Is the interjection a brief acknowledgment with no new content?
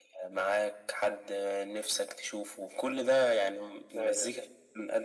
Yes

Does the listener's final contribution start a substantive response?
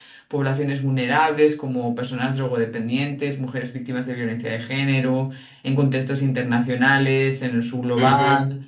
No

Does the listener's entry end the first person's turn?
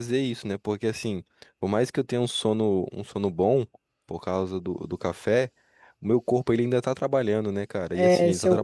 Yes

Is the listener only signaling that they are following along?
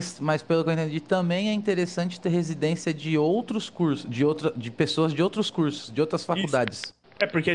No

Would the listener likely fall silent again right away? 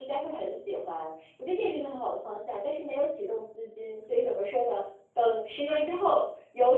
Yes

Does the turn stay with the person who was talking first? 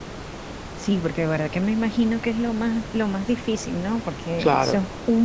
Yes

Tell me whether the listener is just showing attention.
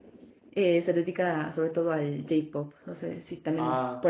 No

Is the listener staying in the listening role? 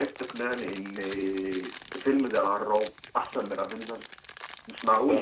No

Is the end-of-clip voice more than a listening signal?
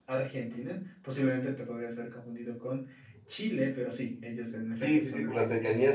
Yes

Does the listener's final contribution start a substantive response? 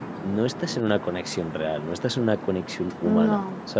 No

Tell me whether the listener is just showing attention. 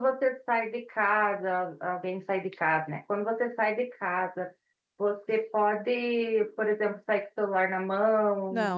No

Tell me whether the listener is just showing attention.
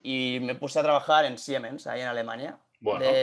Yes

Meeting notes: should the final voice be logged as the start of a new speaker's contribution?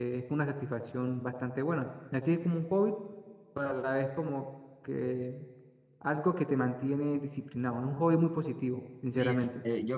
Yes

